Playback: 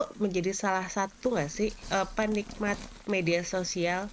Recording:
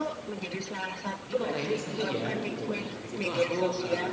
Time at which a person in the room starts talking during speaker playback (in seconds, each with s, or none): 1.3 s